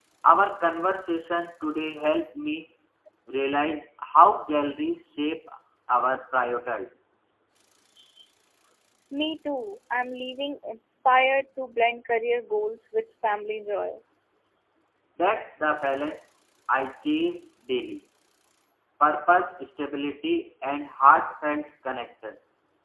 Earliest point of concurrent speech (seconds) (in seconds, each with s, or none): none